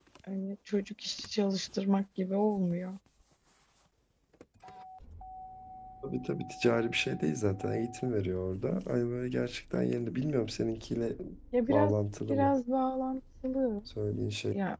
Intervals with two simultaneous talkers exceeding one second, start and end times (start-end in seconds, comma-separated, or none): none